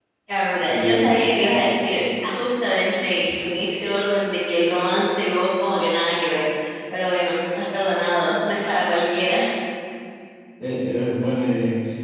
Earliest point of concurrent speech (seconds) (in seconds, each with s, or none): 0.7 s